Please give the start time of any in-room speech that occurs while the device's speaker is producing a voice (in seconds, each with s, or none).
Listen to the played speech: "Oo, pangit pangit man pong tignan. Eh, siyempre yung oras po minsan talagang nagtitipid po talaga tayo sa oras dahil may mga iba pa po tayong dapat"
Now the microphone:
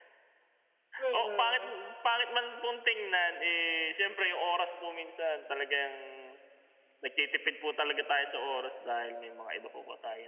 1.0 s